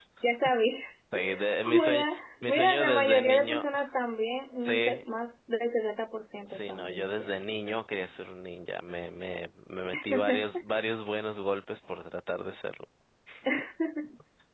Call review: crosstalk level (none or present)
present